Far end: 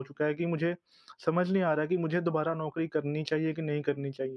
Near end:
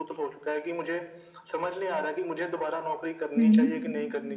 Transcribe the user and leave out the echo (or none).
हुँ।